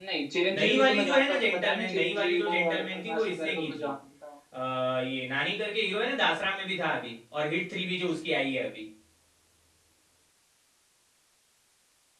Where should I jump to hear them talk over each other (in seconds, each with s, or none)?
0.6 s